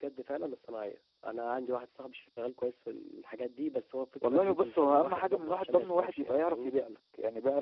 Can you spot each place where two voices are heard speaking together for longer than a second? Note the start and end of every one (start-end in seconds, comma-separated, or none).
4.2-6.7